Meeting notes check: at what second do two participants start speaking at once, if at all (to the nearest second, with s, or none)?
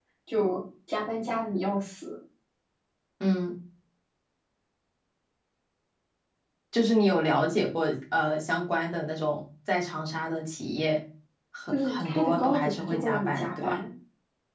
12 s